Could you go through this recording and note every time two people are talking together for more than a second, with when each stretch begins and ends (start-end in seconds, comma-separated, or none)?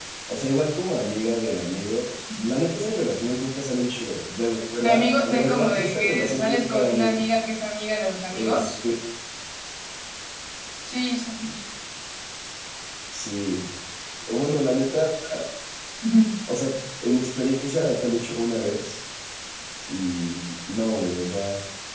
4.8-7.2